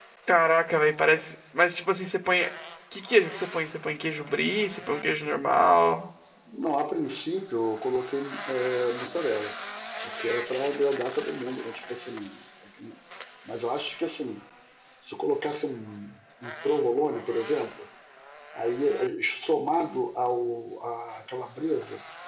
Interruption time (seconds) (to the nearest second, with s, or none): none